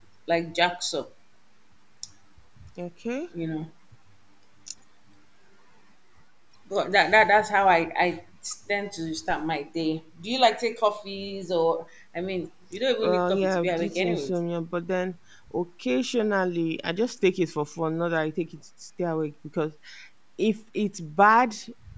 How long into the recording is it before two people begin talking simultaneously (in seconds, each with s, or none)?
13.0 s